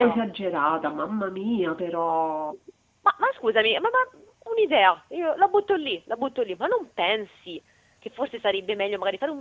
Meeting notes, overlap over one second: none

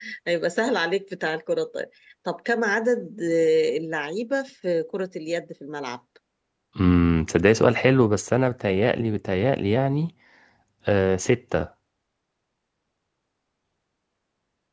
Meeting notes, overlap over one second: none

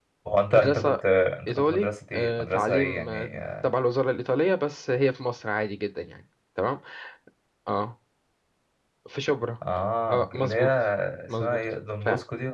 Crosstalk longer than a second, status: present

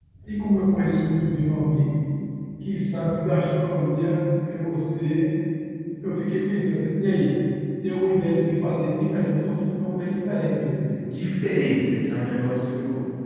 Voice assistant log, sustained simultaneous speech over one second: none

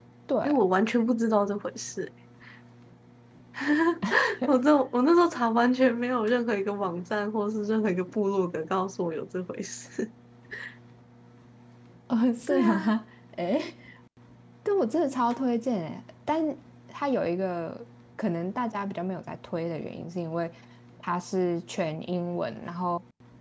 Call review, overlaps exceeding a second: none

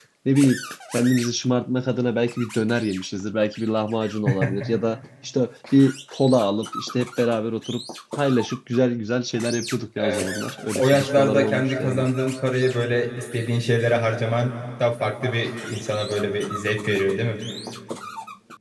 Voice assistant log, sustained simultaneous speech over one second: present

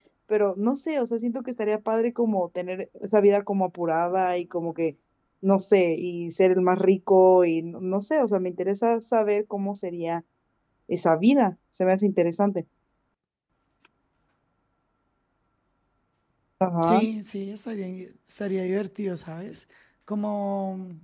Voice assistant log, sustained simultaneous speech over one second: none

